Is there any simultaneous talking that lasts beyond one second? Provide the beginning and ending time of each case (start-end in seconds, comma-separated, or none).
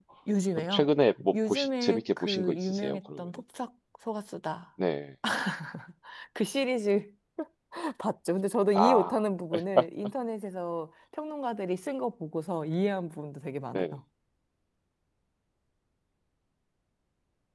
1.5-3.2